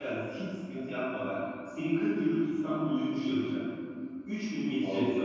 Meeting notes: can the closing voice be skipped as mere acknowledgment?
Yes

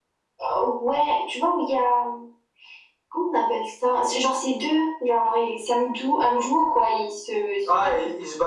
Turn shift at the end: Yes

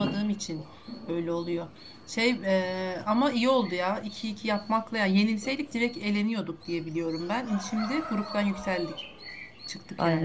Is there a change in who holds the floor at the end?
Yes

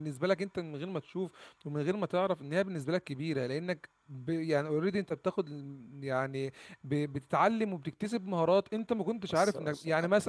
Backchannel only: Yes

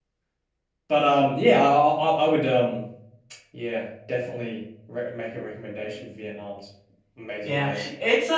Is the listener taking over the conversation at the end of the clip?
Yes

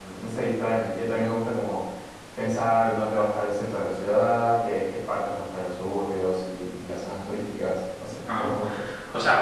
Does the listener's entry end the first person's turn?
Yes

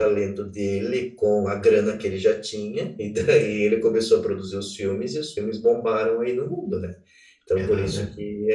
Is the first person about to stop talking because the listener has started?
No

